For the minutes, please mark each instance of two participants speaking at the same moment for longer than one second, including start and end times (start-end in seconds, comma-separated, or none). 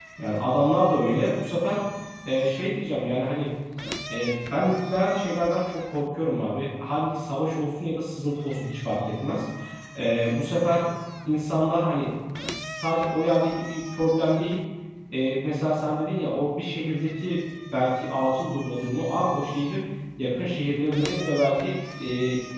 none